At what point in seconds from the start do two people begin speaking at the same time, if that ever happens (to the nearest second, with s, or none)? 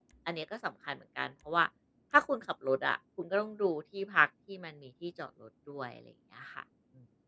none